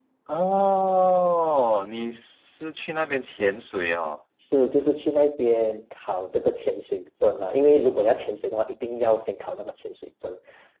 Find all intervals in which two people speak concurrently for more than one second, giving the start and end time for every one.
none

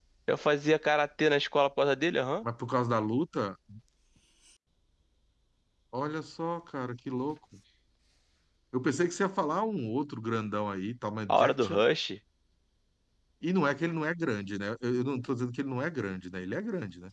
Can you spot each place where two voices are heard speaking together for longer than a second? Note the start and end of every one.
none

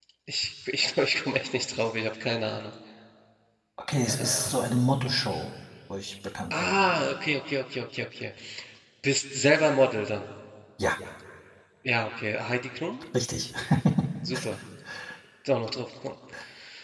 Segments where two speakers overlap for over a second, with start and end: none

